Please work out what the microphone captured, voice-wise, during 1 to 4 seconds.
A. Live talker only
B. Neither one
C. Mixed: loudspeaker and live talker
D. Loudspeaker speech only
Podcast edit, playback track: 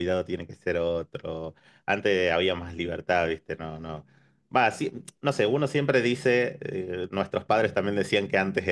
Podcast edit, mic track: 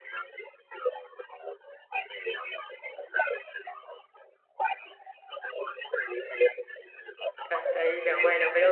D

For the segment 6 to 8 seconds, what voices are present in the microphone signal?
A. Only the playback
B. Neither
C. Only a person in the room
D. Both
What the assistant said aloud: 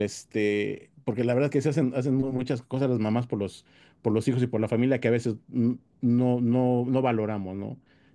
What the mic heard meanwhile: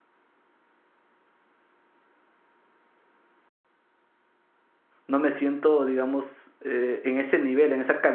C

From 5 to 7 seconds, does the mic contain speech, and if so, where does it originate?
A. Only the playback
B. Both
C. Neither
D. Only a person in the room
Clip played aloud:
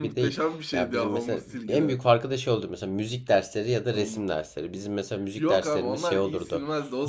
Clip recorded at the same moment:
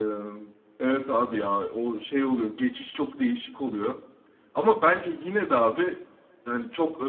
D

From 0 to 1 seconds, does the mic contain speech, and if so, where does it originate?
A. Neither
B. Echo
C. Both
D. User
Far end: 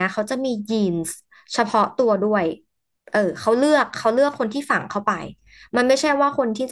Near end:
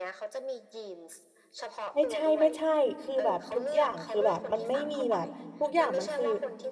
B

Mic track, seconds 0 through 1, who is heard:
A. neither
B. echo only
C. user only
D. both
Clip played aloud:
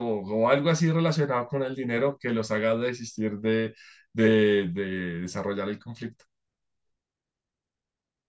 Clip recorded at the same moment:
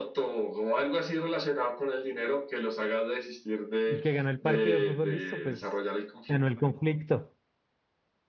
B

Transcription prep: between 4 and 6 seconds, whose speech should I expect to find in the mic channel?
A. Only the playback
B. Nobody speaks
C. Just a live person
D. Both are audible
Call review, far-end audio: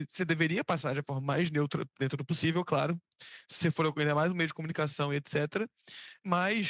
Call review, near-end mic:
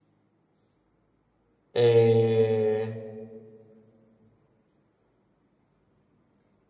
B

